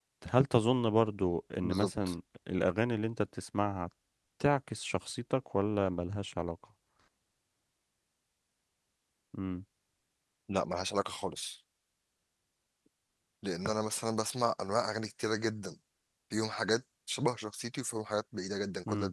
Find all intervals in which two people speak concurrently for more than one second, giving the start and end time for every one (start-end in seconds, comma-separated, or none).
none